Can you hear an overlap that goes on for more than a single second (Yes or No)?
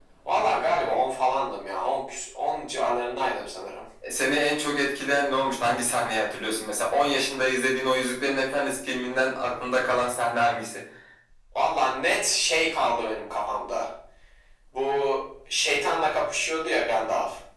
No